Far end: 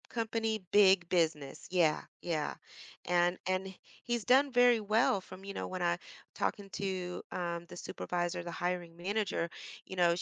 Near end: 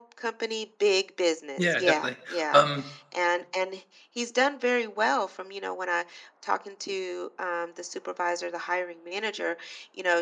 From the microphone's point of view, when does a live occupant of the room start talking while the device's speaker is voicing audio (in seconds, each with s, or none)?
1.6 s